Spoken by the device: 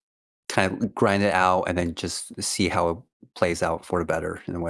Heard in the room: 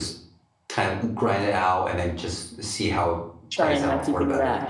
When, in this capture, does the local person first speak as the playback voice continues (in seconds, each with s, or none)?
3.5 s